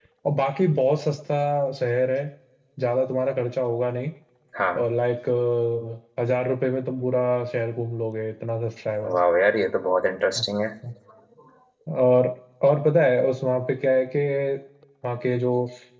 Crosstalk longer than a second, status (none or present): none